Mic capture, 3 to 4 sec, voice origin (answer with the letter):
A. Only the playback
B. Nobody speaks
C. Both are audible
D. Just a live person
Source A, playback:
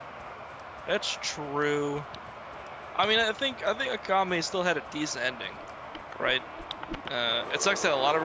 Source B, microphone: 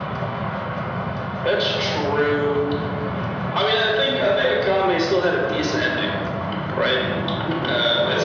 A